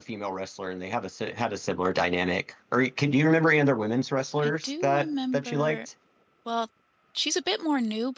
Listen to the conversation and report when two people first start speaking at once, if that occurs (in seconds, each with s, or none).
4.4 s